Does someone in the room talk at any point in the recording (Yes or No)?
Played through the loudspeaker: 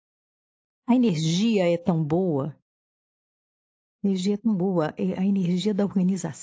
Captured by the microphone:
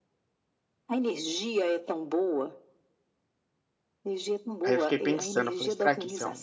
Yes